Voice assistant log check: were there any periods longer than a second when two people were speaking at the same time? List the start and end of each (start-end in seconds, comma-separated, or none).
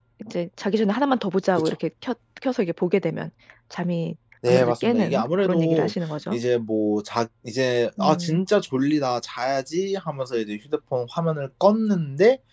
4.5-5.9